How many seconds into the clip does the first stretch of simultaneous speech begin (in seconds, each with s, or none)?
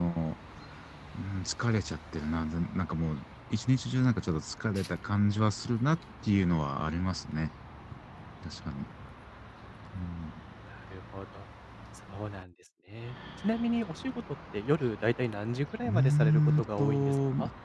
15.8 s